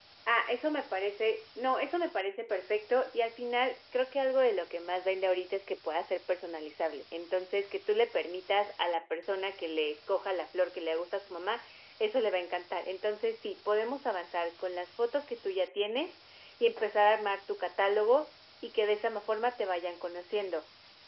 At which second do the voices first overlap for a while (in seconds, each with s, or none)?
none